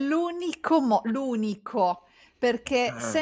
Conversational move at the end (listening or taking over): listening